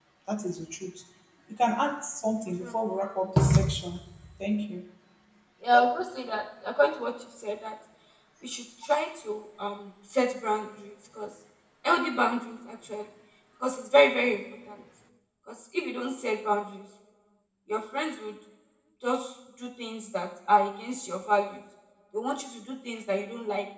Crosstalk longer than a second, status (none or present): none